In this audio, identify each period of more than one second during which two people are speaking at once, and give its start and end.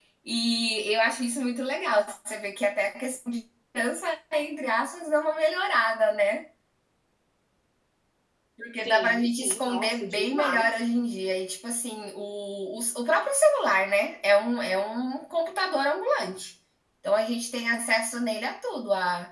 8.8-10.7

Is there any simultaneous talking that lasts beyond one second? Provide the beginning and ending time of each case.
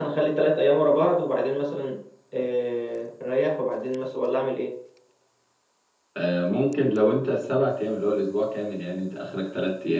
none

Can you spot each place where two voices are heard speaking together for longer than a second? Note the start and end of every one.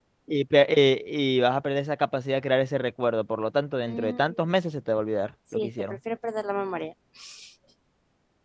none

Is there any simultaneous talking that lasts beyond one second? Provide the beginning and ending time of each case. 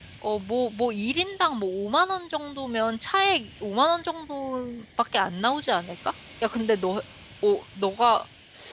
none

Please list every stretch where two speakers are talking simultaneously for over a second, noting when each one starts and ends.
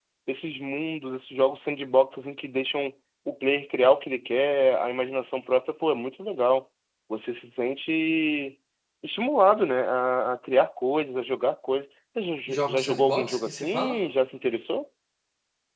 12.5-14.0

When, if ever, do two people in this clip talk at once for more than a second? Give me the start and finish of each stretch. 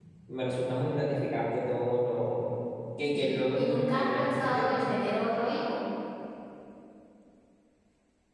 3.1-4.8

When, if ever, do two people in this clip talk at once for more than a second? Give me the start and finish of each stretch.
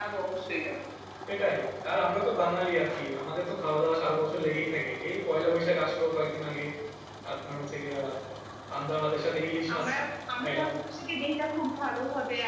none

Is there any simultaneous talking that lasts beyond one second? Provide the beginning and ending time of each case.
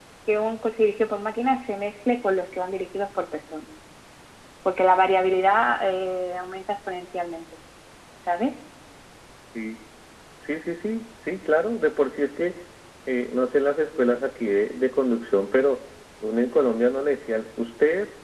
none

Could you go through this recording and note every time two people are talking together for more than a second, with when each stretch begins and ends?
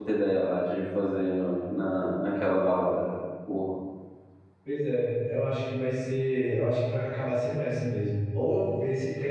none

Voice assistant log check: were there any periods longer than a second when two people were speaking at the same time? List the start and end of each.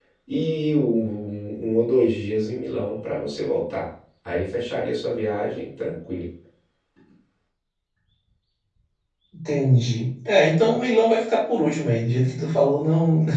none

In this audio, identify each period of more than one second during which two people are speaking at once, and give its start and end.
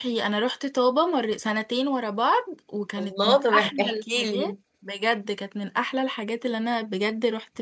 3.0-4.5

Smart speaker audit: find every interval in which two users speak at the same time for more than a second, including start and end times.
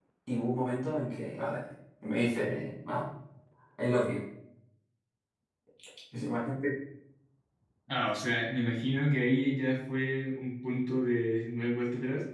none

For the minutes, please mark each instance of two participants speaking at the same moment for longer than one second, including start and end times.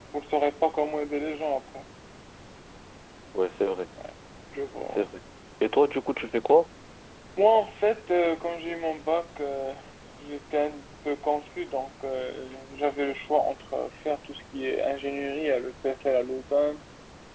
none

